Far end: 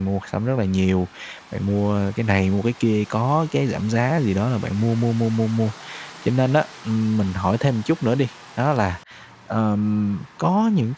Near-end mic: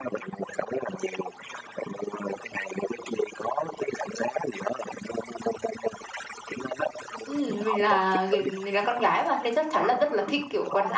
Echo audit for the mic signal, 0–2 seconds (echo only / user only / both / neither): echo only